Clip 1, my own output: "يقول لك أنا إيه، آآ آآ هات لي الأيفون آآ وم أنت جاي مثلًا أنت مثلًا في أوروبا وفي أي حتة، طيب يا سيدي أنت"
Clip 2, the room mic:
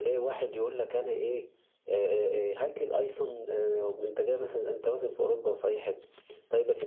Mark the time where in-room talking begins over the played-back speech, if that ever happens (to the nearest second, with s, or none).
none